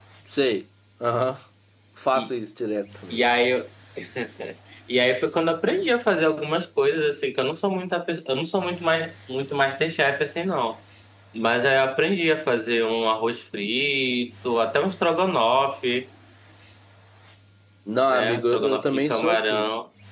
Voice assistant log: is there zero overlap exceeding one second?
No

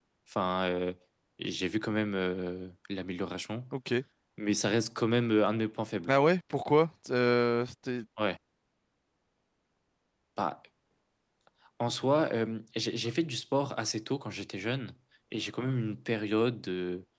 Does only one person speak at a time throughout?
Yes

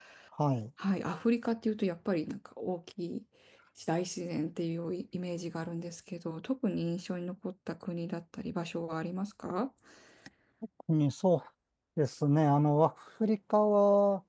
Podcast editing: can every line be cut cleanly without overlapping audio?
Yes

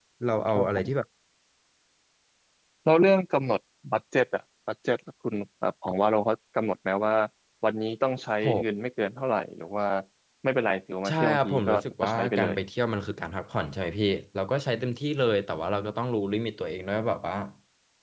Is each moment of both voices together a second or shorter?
No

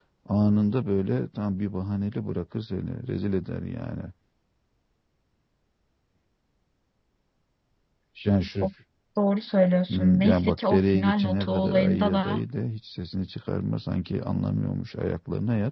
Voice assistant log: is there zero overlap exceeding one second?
No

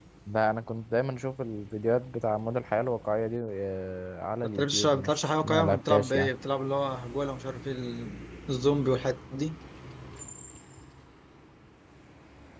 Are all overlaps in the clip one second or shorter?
No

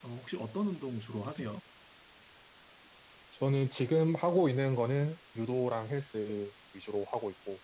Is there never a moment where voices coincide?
Yes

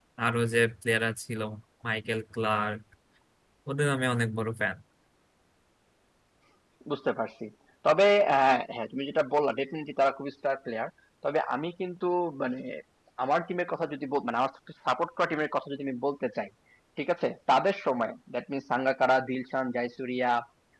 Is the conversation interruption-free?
Yes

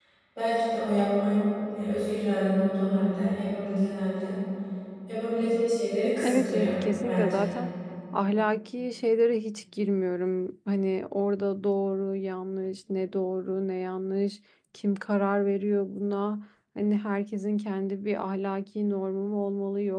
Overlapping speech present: Yes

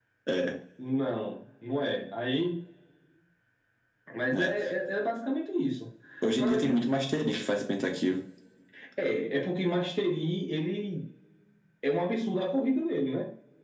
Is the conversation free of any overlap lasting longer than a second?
Yes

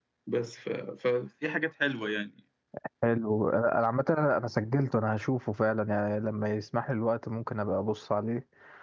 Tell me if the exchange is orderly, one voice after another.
Yes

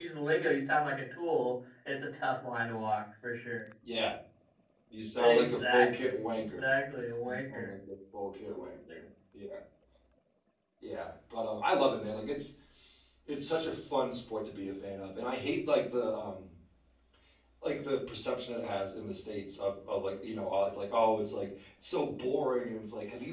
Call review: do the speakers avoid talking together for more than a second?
No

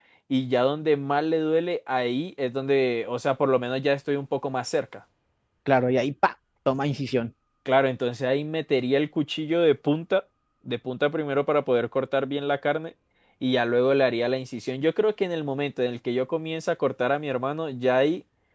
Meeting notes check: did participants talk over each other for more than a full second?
No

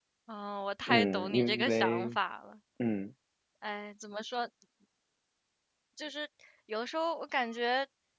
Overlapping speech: Yes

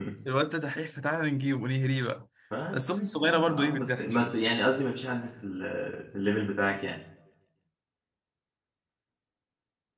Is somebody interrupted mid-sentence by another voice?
Yes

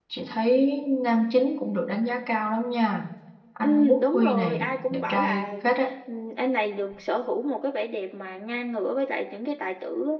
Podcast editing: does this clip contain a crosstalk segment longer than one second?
Yes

